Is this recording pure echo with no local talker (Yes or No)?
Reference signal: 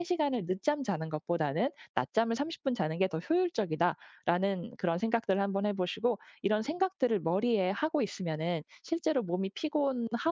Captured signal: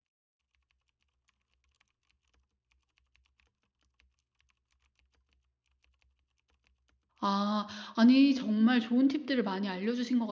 No